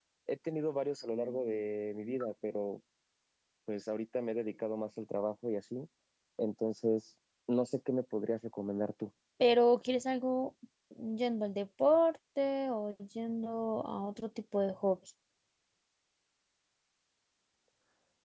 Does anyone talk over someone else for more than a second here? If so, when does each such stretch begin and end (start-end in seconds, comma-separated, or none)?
none